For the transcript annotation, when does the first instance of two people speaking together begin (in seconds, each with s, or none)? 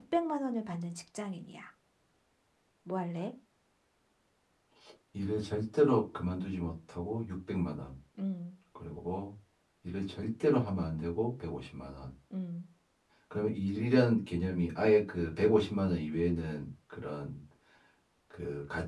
none